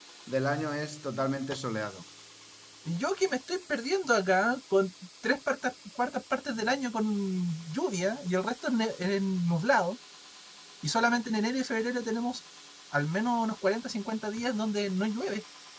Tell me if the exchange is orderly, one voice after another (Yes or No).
Yes